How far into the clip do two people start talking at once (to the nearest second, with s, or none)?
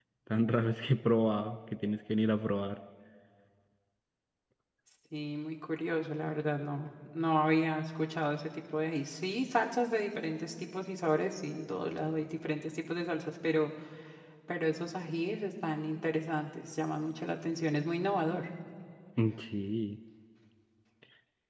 none